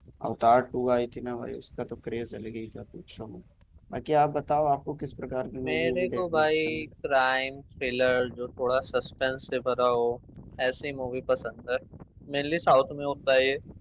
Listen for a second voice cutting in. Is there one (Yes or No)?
Yes